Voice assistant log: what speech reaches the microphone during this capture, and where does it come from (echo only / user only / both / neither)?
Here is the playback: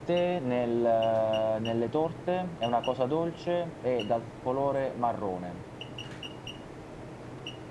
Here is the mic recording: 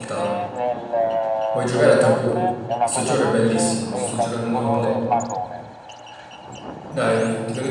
both